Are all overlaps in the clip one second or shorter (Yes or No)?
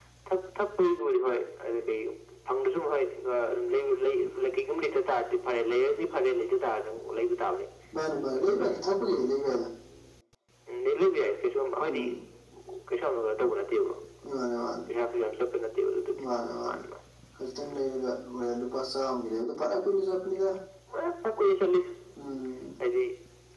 Yes